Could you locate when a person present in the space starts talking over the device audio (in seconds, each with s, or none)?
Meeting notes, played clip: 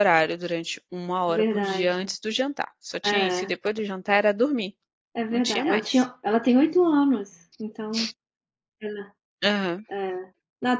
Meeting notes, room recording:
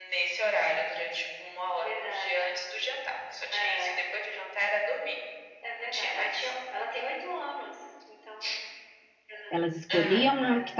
9.5 s